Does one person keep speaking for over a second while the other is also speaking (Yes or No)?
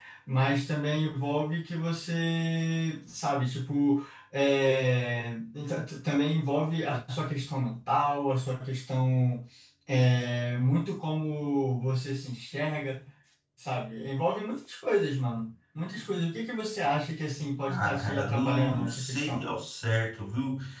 Yes